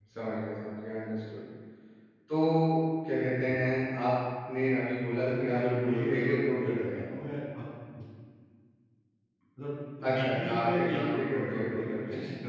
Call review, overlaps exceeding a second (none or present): present